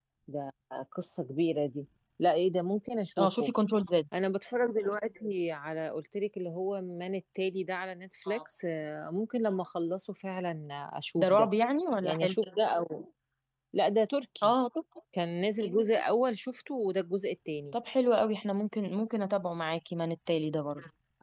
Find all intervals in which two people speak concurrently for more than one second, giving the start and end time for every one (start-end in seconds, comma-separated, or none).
none